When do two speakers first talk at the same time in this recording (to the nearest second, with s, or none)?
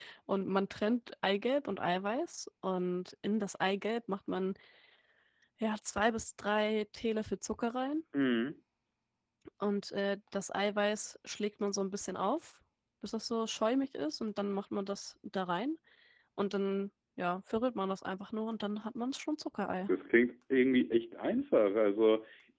none